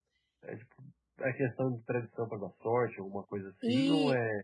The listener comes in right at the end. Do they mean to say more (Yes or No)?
Yes